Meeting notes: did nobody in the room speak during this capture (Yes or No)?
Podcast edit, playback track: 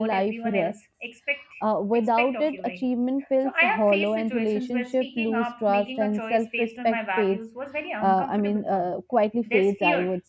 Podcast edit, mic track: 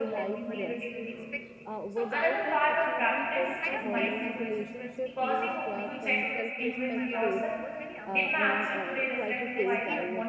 No